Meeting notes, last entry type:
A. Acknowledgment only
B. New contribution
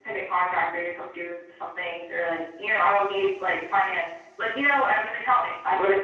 B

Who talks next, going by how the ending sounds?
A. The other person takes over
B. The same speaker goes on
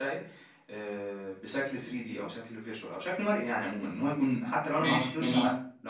B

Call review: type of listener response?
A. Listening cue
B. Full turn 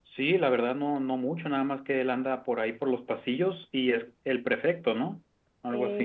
B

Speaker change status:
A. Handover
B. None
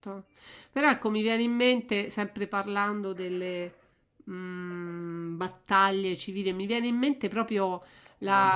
B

